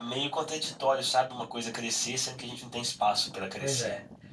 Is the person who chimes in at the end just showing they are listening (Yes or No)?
No